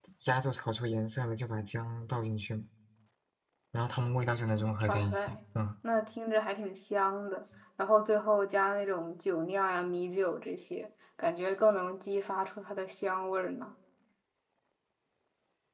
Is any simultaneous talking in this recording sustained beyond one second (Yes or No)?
No